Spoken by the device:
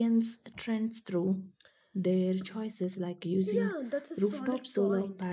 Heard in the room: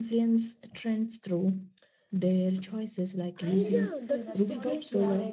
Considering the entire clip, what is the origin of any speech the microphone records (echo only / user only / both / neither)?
both